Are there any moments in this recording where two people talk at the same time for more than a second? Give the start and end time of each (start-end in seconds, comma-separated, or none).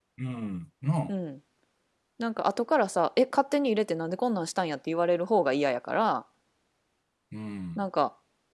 none